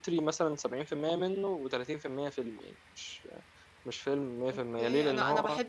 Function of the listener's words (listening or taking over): taking over